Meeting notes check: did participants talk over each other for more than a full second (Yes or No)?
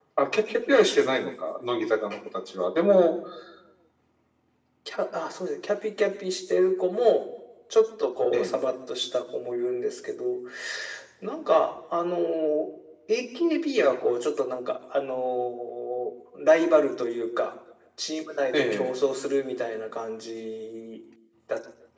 No